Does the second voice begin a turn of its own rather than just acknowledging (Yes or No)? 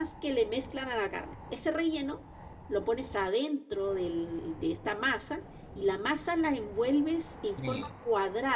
No